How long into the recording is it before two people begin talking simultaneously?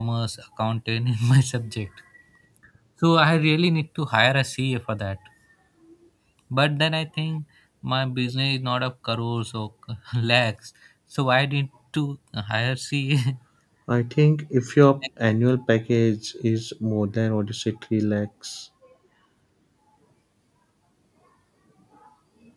none

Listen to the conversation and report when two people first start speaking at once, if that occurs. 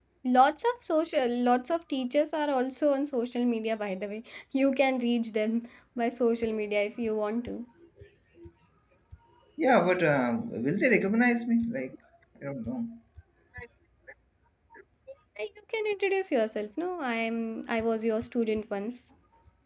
none

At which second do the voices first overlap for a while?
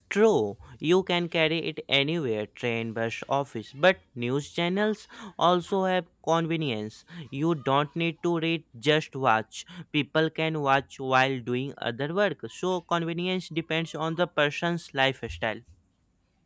none

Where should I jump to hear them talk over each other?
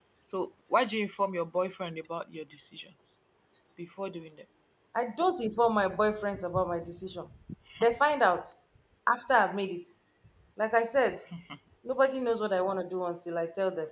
none

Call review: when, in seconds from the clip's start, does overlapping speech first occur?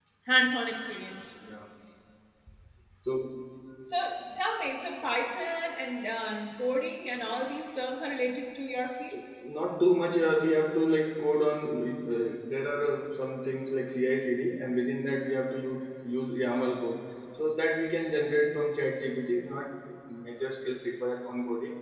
none

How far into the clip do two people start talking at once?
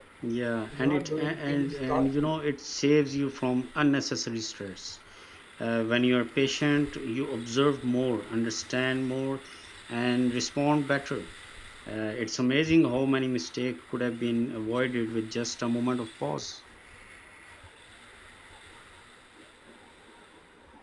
0.7 s

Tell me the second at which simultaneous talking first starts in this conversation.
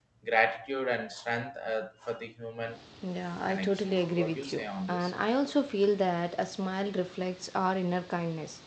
3.5 s

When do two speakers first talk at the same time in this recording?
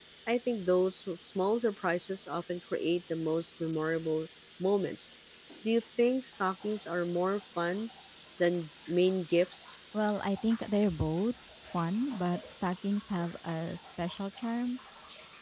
none

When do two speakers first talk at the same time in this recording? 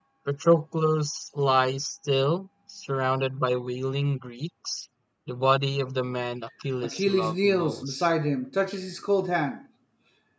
6.8 s

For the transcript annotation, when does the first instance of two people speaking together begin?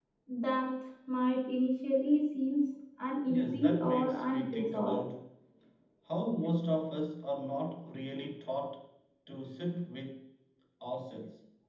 3.3 s

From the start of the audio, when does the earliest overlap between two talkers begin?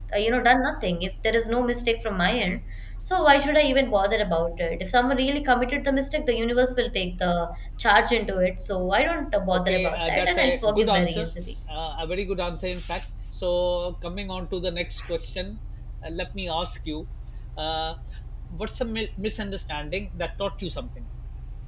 9.7 s

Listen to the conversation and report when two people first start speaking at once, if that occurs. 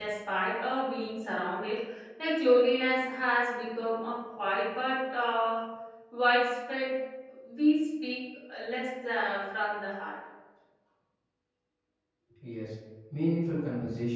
none

